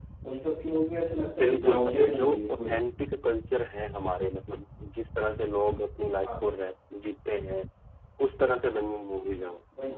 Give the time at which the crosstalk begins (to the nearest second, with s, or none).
1 s